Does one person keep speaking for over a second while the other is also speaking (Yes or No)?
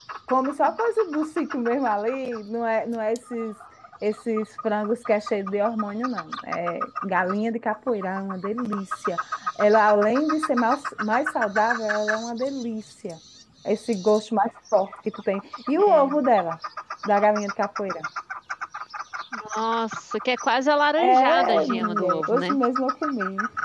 Yes